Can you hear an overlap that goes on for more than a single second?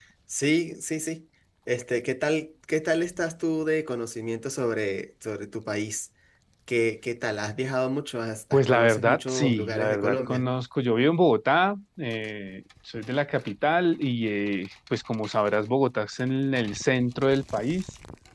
Yes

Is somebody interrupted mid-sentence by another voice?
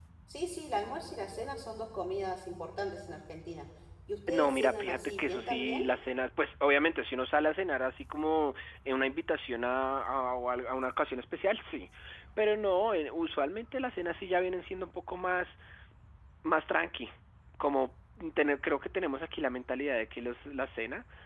Yes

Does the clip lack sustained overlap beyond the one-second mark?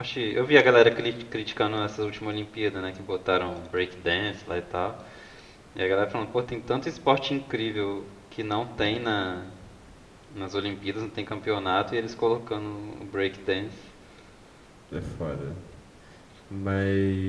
Yes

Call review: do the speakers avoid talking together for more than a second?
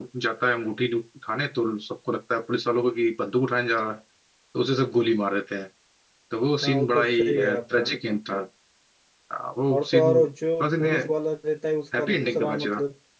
No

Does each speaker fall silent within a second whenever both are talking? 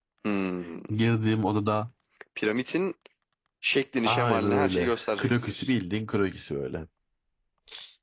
No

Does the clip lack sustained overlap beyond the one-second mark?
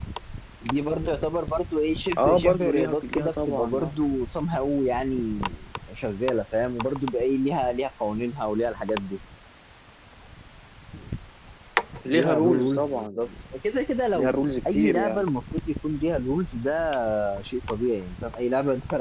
No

